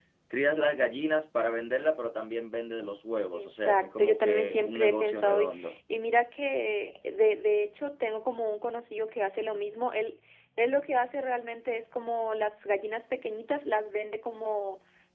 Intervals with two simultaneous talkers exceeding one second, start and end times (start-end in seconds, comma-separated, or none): 3.3-5.7